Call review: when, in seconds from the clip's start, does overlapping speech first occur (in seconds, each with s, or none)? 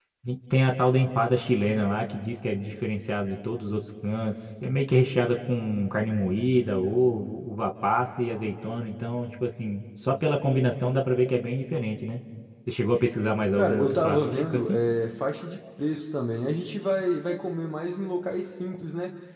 13.6 s